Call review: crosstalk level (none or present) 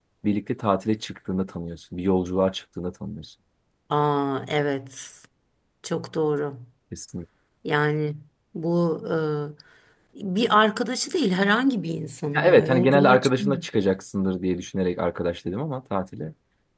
present